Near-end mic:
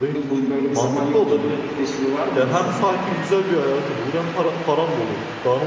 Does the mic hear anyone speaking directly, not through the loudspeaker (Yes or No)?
Yes